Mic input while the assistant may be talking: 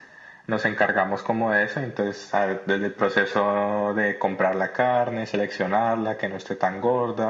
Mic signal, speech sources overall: echo only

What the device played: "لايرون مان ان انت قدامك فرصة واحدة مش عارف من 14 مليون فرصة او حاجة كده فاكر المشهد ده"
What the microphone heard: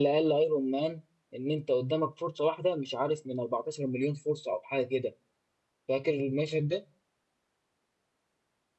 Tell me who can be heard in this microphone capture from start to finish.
echo only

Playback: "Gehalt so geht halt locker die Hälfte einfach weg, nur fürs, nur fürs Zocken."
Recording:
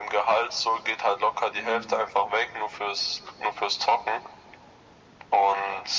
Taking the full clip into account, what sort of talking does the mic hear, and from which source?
both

